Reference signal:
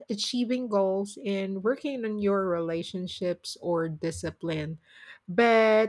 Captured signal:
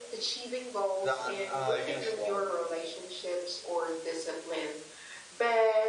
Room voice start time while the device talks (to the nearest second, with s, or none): 1 s